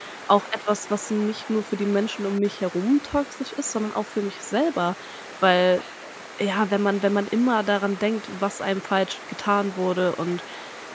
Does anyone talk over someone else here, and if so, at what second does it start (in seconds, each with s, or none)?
none